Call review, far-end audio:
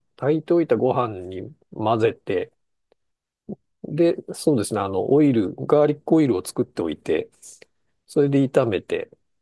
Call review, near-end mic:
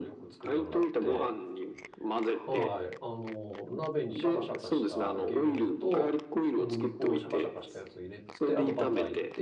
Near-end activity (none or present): present